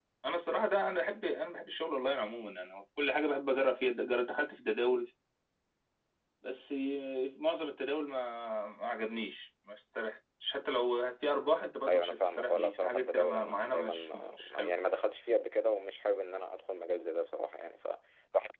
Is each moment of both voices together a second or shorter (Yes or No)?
No